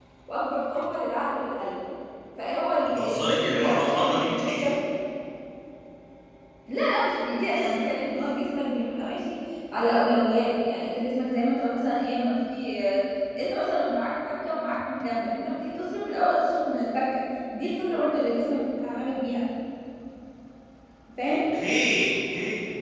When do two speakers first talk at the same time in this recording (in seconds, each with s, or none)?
2.8 s